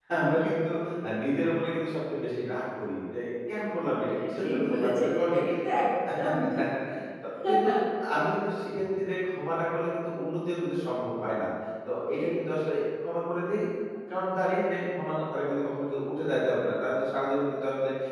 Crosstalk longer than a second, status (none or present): present